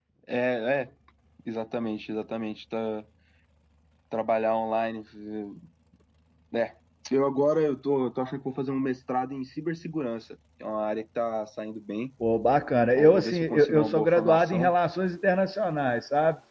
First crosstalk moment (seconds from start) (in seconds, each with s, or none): 12.9 s